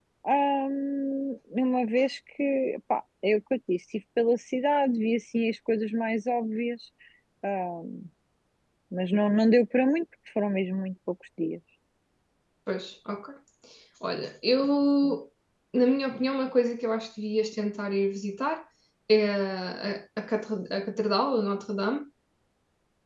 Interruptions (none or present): none